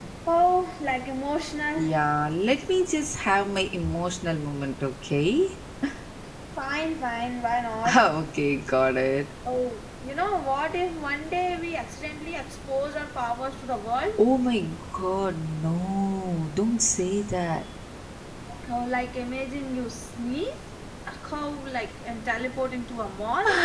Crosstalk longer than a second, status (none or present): none